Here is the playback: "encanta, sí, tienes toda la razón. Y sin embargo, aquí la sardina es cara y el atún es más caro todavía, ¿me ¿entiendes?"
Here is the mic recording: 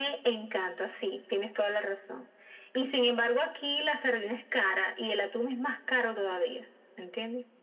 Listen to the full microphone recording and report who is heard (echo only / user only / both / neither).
echo only